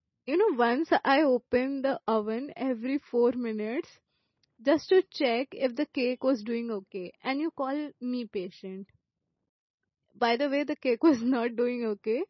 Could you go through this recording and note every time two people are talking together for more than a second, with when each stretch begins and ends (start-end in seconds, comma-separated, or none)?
none